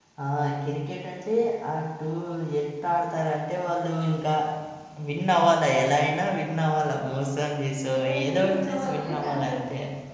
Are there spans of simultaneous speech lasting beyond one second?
Yes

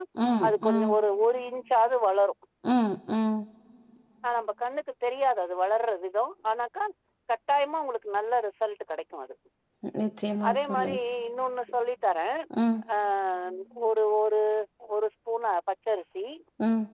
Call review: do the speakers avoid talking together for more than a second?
Yes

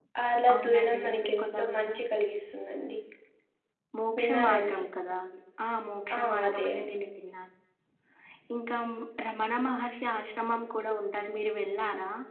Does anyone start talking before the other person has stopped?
Yes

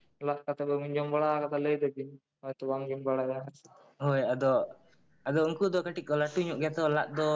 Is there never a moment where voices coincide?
Yes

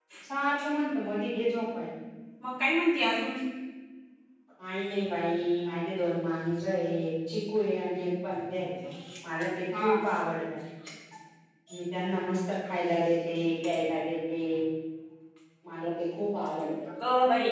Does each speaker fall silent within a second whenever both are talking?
Yes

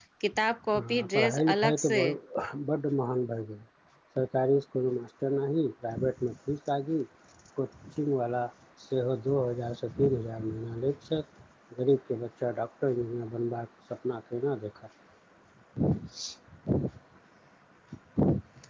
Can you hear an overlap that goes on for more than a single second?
Yes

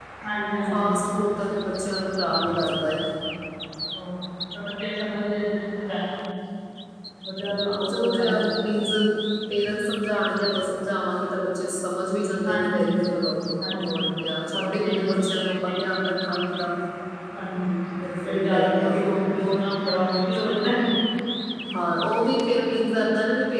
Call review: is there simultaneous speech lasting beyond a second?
Yes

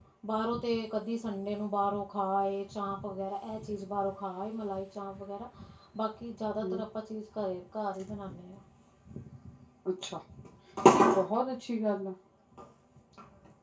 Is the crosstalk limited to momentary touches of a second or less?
Yes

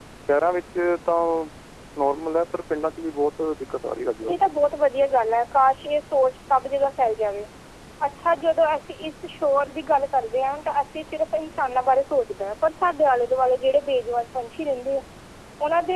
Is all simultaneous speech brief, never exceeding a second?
Yes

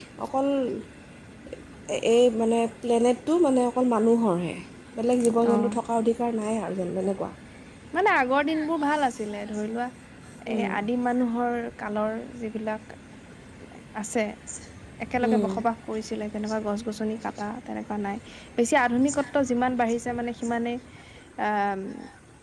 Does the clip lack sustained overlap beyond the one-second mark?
Yes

